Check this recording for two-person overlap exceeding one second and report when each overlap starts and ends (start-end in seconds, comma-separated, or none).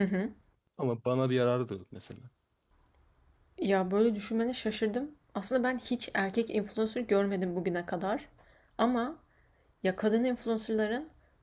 none